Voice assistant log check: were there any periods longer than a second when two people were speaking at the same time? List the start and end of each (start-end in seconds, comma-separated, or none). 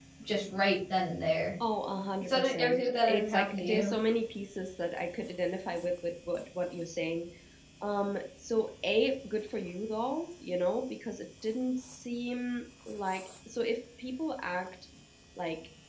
2.2-3.9